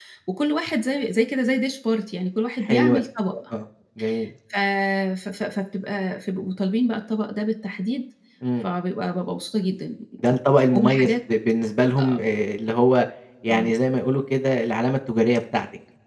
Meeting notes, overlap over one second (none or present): none